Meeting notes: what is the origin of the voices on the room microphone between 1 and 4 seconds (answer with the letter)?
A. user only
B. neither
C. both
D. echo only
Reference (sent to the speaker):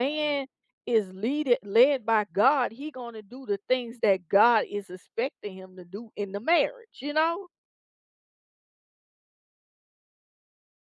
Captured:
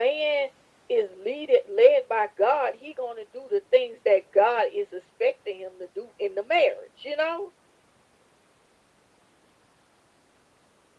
D